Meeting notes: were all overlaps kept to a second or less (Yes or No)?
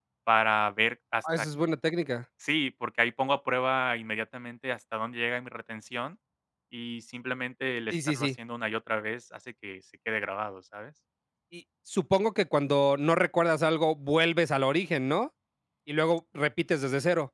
Yes